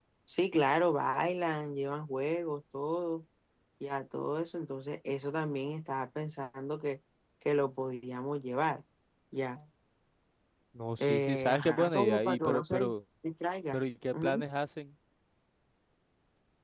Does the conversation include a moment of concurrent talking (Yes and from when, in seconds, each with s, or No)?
Yes, from 11.0 s